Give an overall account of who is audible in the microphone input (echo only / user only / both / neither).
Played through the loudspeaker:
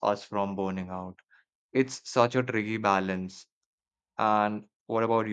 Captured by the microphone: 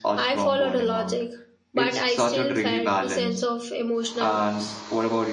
both